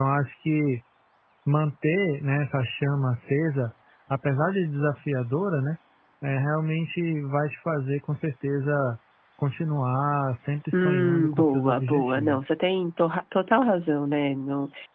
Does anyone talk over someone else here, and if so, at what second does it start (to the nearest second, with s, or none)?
11 s